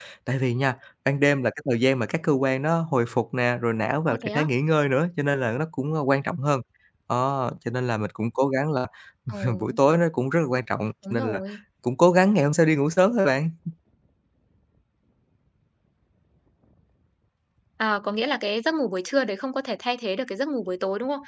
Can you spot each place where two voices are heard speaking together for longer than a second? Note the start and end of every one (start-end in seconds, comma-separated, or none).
none